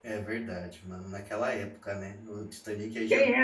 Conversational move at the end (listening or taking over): listening